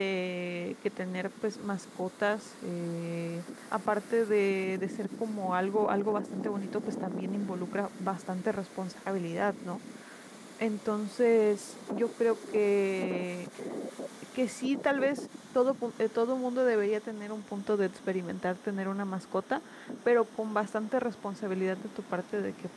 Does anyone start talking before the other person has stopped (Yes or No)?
No